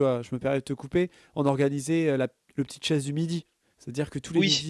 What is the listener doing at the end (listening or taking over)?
listening